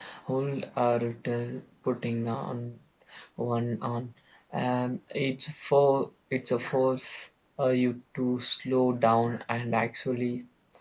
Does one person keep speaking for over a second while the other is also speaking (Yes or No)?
No